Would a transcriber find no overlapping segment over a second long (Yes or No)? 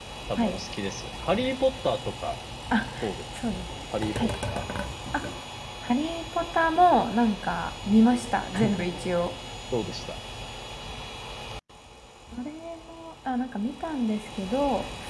Yes